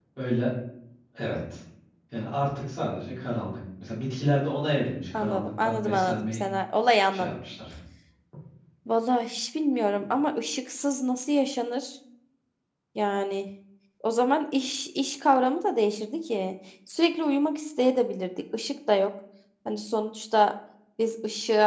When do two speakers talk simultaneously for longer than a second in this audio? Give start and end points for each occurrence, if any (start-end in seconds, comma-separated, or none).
5.1-6.4